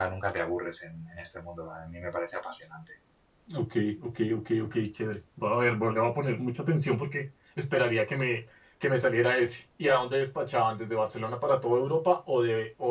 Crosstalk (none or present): none